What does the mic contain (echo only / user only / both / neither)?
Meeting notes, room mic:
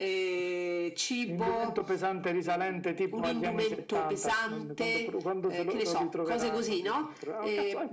echo only